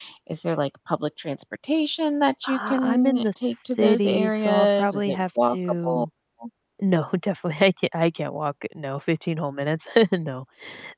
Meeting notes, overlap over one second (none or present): present